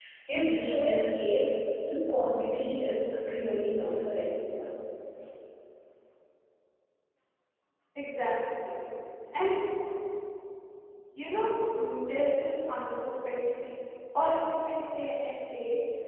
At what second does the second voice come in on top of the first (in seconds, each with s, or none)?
none